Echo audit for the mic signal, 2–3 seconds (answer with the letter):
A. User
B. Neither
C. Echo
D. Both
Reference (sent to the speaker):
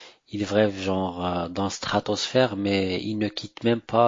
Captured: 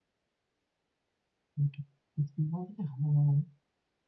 A